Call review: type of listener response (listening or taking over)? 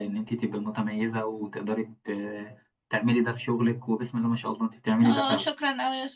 taking over